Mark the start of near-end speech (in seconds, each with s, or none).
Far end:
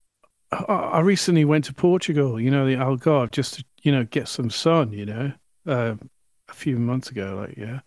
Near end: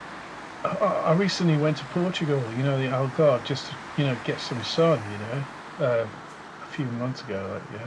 none